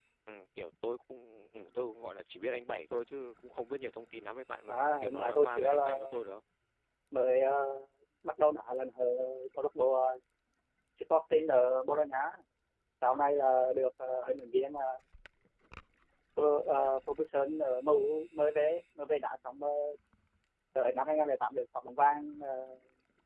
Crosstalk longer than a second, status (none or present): present